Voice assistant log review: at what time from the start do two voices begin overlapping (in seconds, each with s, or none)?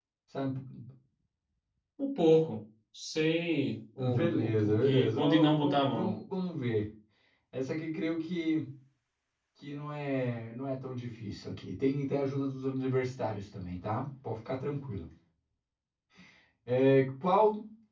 4.0 s